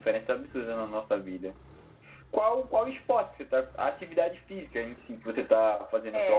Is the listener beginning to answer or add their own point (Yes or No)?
Yes